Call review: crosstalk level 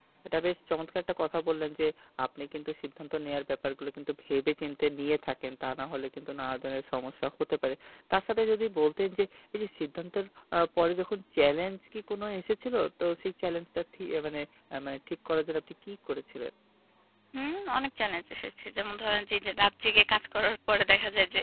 none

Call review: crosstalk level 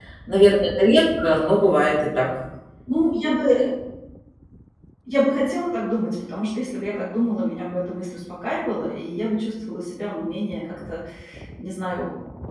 none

